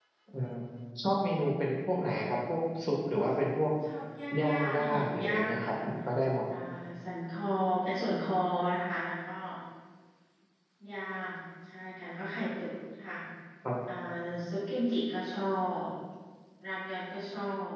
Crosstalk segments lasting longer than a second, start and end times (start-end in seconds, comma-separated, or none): 4.4-5.8